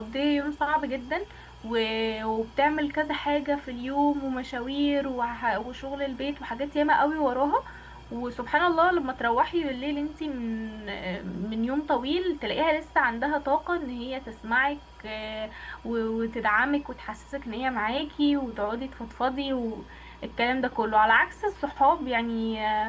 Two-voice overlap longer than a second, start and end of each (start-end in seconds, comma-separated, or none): none